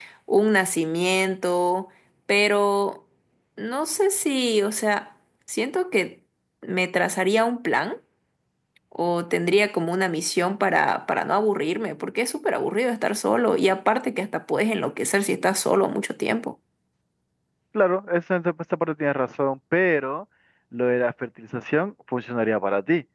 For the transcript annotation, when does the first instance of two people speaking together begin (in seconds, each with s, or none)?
none